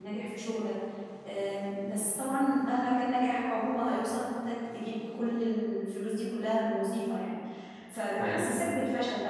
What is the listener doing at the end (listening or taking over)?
listening